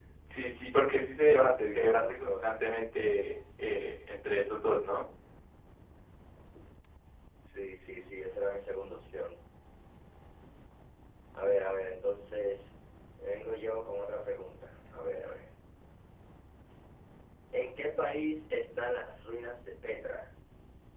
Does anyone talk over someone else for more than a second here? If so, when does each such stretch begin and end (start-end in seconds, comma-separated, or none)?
1.2-2.6